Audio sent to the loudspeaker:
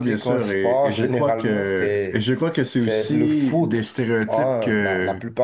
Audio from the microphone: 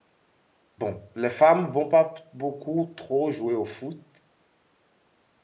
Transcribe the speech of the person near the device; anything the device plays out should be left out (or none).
bon, les femmes vont pas beaucoup trop jouer au foot.